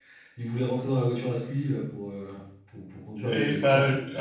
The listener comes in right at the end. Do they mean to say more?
Yes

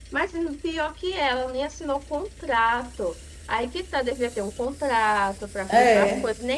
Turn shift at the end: No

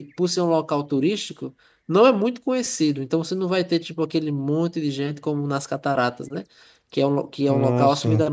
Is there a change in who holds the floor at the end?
No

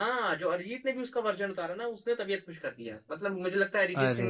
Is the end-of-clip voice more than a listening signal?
No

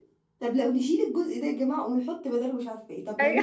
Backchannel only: Yes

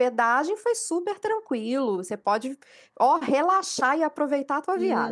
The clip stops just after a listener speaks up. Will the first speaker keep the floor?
No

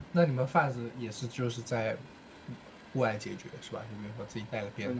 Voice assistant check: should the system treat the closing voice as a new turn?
Yes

